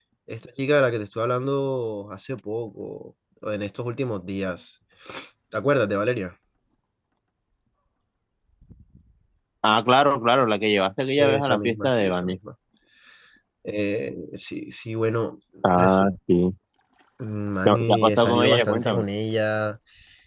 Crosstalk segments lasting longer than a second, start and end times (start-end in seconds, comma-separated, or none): 11.2-12.4, 17.6-19.0